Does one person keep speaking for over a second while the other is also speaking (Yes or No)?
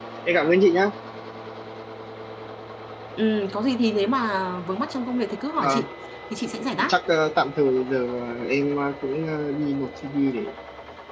No